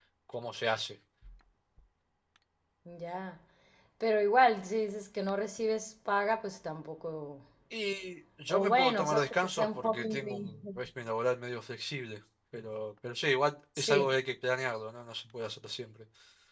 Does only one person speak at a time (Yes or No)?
No